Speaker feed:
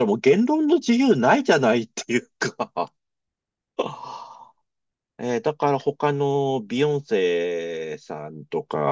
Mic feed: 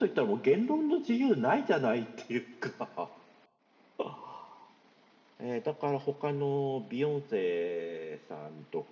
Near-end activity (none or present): none